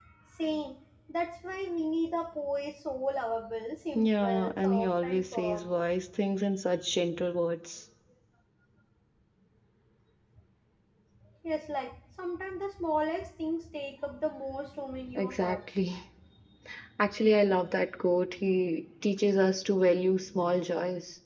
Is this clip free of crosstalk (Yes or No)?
No